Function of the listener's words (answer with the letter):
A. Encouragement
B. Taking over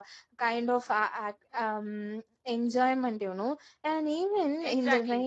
B